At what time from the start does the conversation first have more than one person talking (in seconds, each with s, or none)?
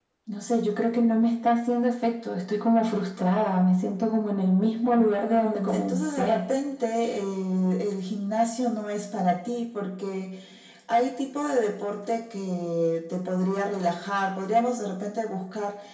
5.0 s